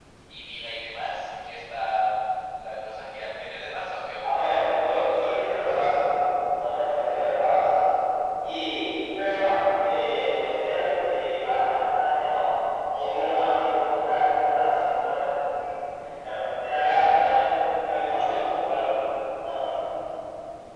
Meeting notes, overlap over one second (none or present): present